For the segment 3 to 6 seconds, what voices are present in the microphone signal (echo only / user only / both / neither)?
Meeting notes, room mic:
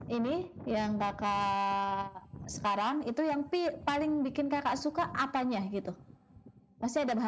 echo only